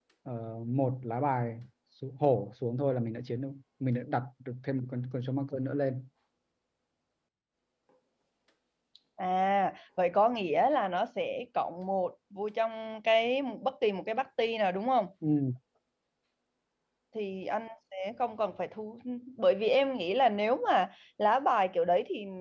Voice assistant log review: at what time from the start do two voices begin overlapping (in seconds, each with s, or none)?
none